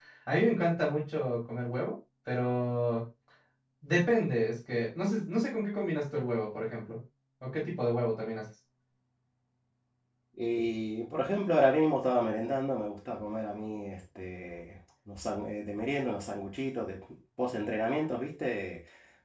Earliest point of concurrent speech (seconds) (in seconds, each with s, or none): none